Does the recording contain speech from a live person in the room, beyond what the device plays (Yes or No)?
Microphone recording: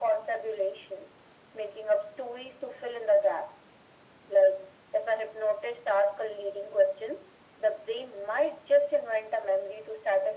No